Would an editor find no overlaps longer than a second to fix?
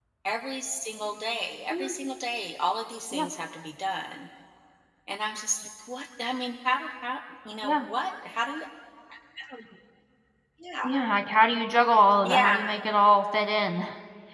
Yes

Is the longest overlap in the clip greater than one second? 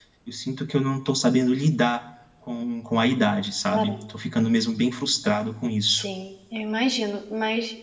No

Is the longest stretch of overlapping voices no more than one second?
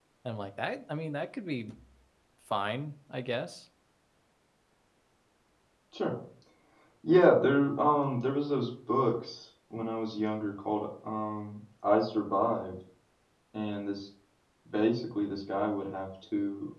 Yes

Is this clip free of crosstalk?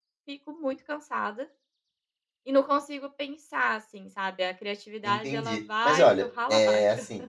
No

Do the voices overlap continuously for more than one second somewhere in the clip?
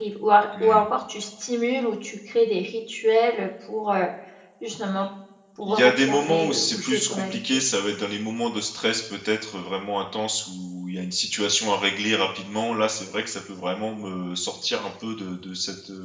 Yes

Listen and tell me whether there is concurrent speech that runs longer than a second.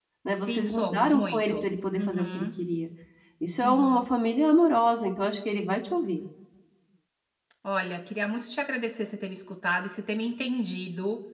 Yes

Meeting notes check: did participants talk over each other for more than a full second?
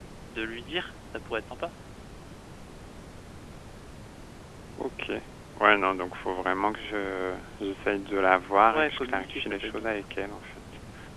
Yes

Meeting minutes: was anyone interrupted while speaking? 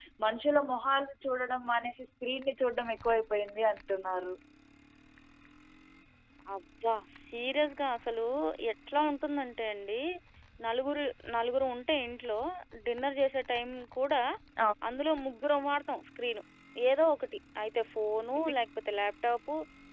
No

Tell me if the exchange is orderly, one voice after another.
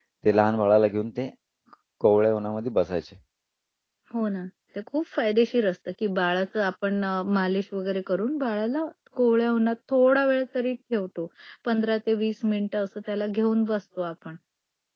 Yes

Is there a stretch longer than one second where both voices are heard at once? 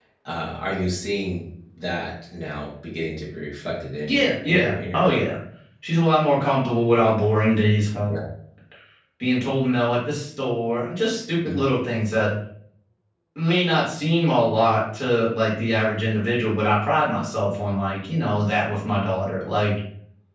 Yes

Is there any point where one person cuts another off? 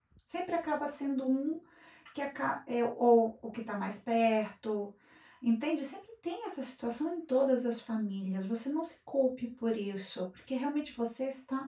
No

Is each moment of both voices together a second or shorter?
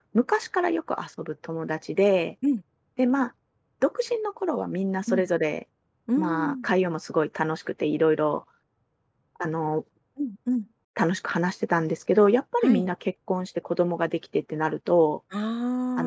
Yes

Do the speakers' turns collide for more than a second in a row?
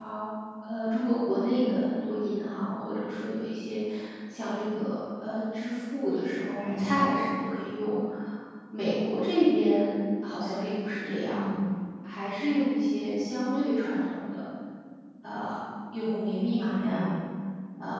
No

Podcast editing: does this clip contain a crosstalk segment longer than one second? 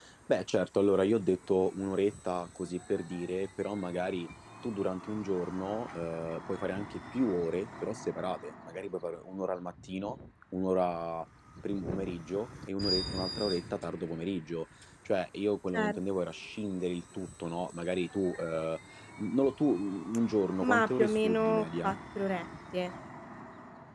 Yes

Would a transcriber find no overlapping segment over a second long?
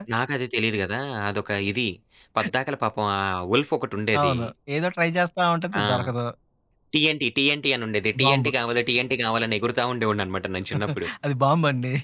Yes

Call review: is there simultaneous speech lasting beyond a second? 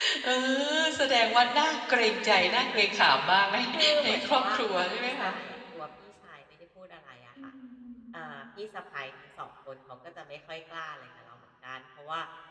Yes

